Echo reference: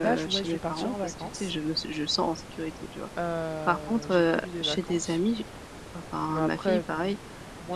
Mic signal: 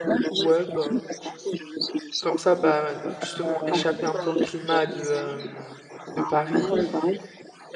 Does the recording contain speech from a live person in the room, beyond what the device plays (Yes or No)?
Yes